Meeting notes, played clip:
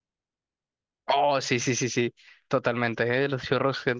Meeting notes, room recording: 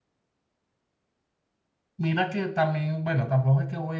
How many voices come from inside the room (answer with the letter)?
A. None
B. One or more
B